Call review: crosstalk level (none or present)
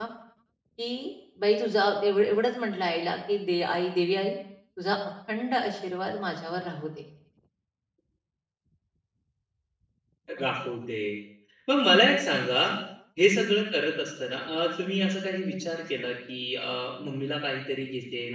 none